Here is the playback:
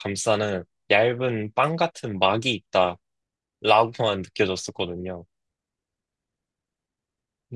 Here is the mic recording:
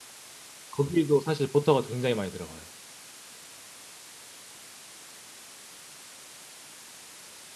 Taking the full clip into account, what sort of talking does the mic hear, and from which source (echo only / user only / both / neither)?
user only